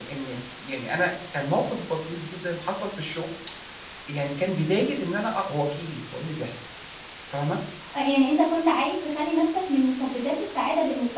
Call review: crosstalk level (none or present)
none